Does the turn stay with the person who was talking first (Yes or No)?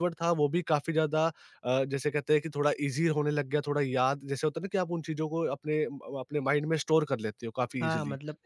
No